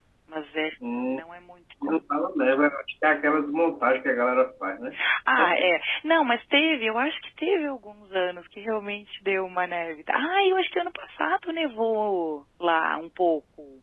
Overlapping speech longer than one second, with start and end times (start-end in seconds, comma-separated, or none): none